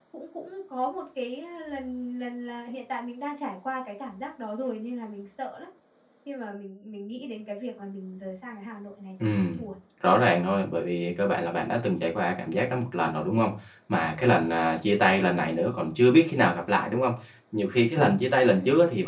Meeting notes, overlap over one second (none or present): none